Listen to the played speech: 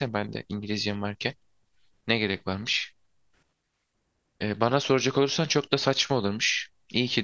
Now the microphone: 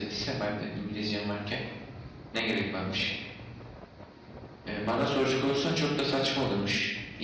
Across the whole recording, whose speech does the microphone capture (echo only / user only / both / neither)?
echo only